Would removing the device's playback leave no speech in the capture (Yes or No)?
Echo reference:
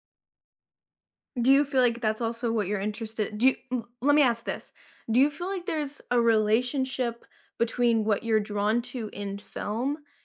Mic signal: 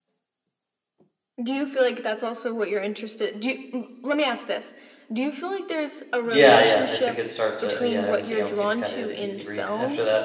No